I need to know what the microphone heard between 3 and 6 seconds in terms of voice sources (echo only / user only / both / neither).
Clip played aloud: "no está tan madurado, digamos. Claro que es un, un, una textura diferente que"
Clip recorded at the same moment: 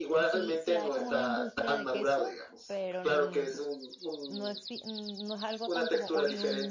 both